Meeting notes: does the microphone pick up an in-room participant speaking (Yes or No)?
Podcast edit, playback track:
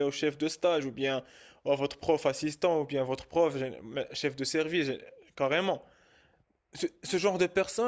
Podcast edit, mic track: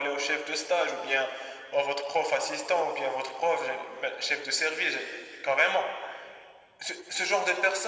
No